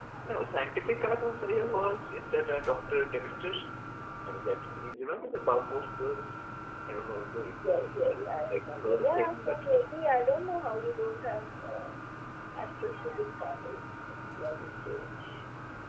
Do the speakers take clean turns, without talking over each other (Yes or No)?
No